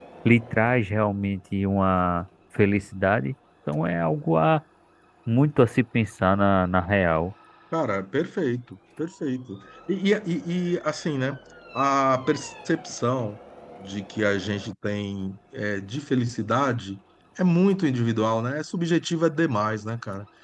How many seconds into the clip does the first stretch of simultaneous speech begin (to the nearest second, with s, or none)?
none